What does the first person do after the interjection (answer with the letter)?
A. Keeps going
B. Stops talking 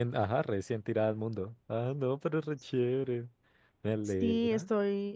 B